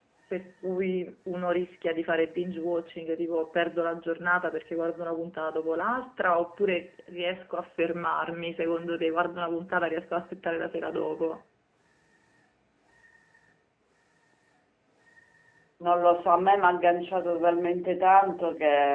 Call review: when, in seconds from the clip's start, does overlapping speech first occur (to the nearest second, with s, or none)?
none